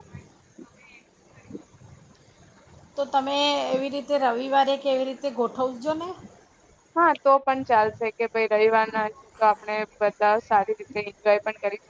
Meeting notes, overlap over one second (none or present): none